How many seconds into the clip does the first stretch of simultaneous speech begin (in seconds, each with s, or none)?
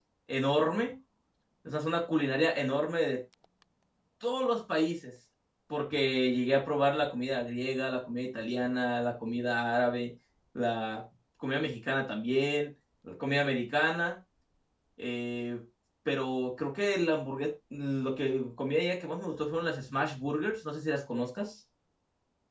none